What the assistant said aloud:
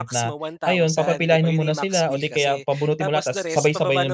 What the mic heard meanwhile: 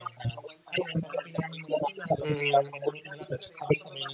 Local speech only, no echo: Mm.

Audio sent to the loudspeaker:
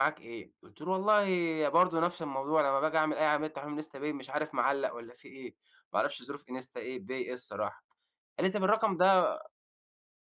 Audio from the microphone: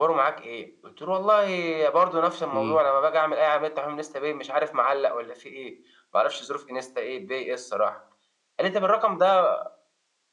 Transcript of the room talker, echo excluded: إمم.

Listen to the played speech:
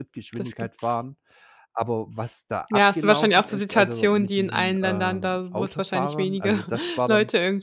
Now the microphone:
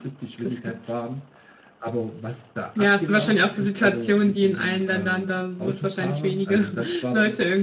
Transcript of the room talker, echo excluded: none

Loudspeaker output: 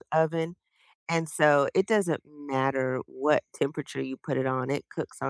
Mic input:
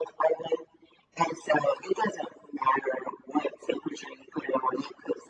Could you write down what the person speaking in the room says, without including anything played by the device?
none

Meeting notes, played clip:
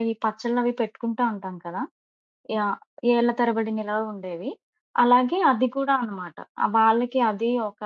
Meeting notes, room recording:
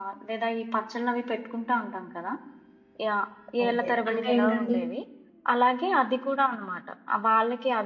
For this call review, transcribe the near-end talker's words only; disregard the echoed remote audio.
ఓకే. అంటే ఏంటండి?

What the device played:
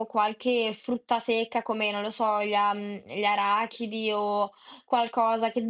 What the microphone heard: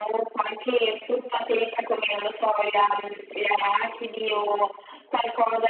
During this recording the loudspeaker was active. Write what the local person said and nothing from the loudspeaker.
none

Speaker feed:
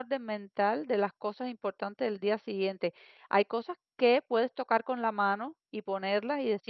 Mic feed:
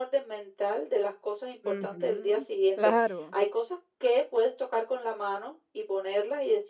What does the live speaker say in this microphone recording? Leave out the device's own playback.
Ujú, claro.

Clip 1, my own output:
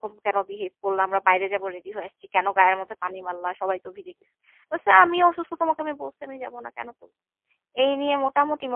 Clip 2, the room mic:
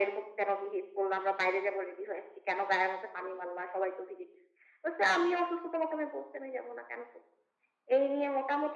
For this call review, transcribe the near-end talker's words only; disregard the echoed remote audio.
none

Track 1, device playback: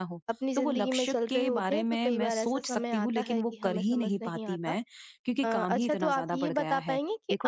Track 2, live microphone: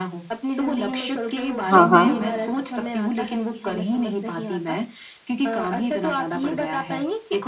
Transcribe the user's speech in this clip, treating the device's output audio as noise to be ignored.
हाँ, हाँ।

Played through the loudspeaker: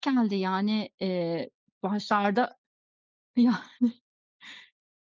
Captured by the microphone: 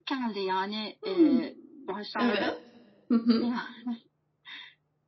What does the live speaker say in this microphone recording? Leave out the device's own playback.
Hıı. Evet. Hı hı.

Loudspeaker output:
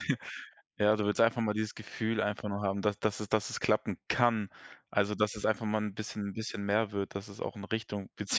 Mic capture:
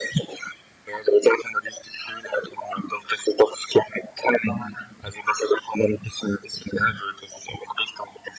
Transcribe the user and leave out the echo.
none

